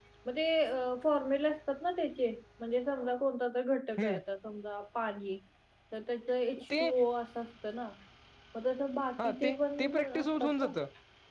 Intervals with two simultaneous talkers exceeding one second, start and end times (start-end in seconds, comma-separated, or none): 9.2-10.7